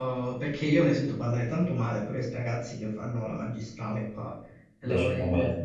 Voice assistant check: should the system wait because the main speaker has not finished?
Yes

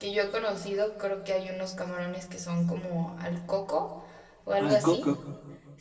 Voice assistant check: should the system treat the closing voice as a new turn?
No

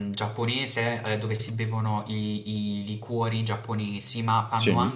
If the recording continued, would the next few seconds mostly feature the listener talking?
No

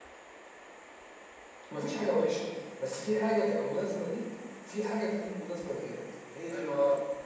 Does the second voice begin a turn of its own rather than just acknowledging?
Yes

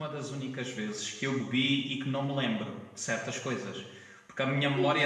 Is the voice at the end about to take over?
Yes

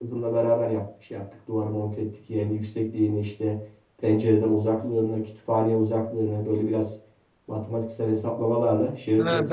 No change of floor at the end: No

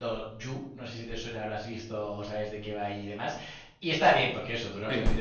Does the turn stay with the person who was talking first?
Yes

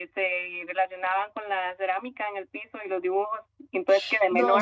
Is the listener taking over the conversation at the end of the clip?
No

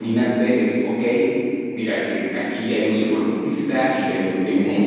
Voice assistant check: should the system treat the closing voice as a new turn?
No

